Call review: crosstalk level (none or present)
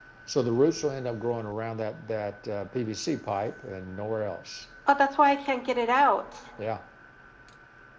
none